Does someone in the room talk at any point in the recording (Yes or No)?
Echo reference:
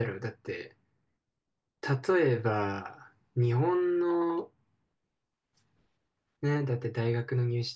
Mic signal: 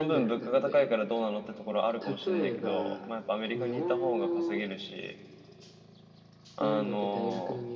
Yes